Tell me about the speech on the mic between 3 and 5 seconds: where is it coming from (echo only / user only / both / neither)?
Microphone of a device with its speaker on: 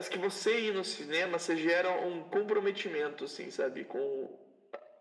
echo only